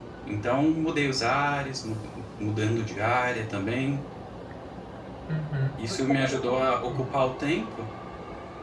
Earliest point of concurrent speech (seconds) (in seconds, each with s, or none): 5.8 s